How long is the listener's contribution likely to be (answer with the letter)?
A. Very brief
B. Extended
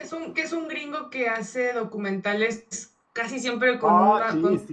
B